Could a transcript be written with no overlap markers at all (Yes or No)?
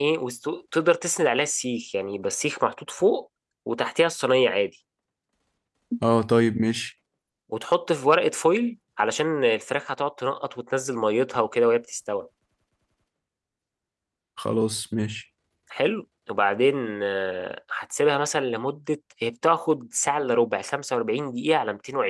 Yes